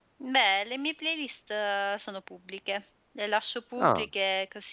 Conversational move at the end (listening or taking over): listening